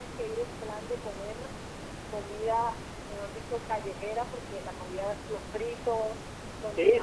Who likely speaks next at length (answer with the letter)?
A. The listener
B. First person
A